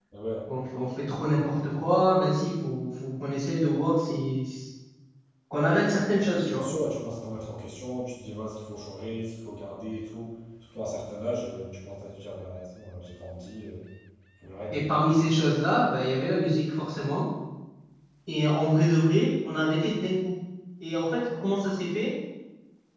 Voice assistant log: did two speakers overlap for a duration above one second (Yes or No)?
No